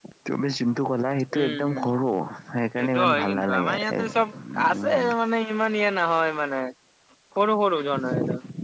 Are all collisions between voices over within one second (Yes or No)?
No